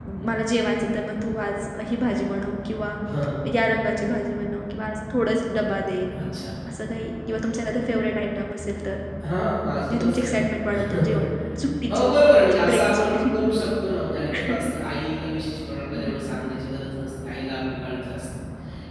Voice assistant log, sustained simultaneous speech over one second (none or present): present